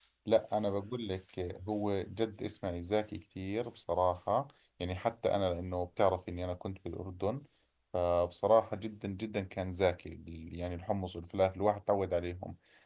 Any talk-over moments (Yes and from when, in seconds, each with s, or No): No